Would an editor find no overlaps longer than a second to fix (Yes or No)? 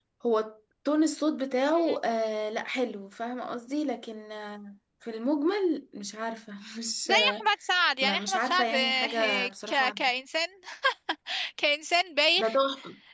No